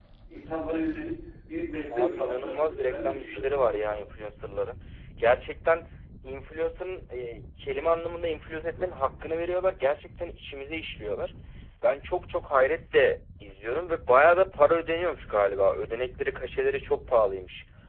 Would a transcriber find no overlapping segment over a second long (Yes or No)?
No